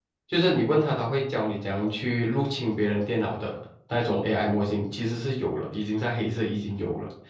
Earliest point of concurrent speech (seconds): none

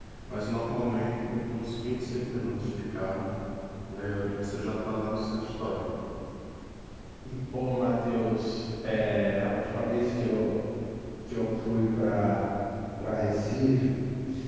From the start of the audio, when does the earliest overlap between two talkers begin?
none

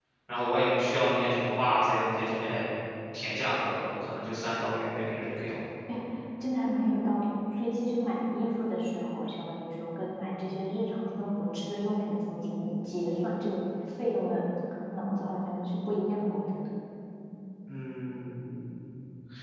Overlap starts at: none

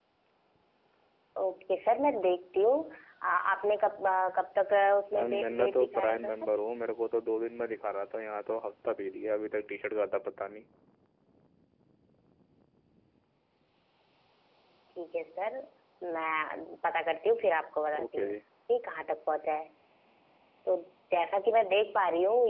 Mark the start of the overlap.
5.1 s

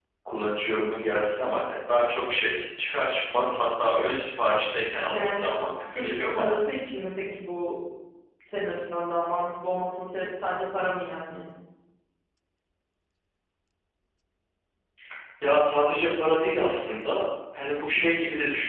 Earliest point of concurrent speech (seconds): 5.0 s

